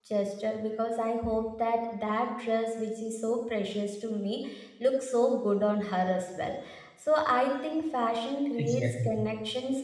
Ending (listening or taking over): listening